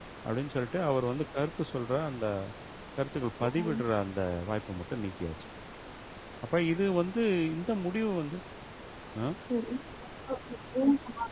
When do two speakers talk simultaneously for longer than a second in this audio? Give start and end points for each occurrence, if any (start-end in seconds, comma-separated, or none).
none